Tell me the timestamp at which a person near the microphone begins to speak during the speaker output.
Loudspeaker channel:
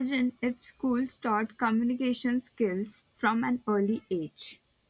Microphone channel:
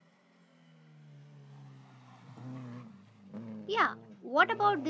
4 s

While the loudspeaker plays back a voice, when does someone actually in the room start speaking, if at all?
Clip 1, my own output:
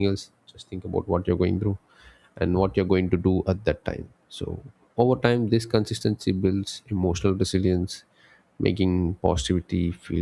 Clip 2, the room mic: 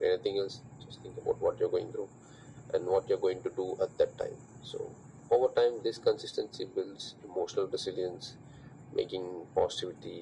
none

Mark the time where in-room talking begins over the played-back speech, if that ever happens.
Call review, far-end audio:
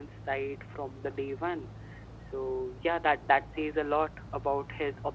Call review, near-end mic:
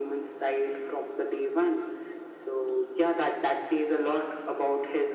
none

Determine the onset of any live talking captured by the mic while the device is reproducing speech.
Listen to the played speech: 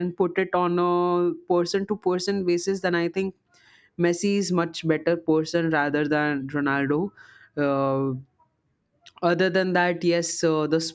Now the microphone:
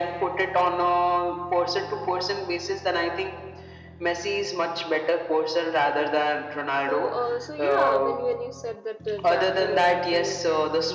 7 s

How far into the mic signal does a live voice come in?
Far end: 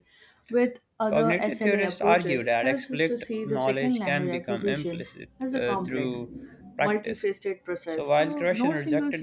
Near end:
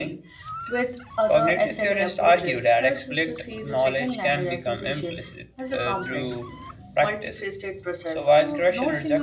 none

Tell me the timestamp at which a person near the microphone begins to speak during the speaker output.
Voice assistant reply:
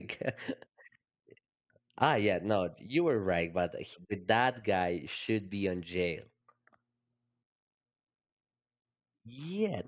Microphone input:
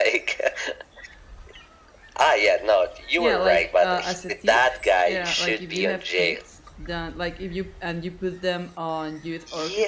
3 s

